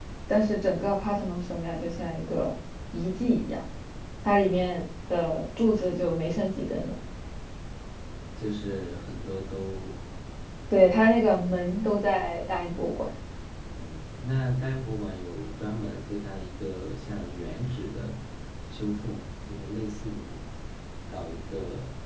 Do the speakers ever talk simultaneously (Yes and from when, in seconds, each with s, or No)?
No